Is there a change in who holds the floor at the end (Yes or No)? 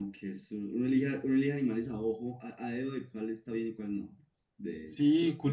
Yes